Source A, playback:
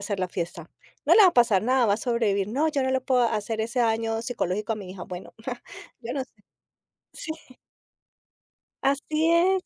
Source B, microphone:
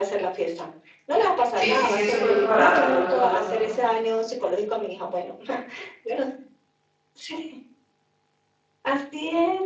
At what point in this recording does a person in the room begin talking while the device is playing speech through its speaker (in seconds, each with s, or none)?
1.5 s